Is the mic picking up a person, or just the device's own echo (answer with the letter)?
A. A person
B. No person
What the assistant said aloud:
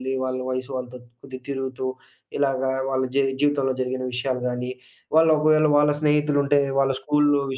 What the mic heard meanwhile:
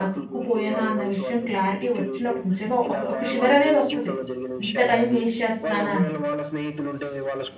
A